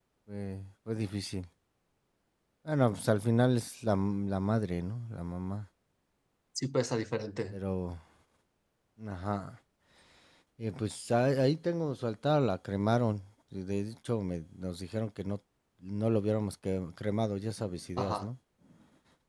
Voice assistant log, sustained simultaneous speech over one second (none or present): none